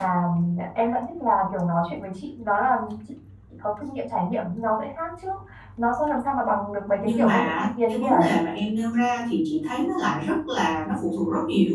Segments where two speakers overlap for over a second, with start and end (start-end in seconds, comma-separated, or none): 7.0-8.5